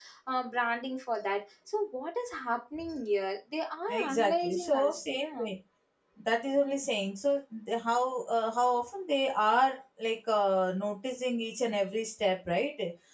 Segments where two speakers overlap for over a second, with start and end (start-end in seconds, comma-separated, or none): 3.9-5.5